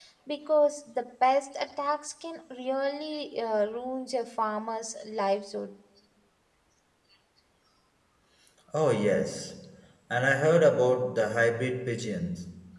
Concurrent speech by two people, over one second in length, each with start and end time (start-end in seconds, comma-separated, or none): none